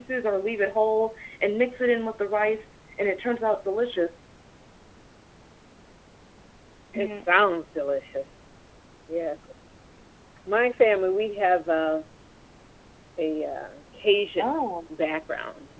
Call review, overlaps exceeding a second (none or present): none